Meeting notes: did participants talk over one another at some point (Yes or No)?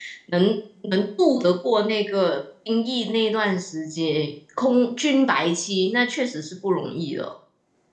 No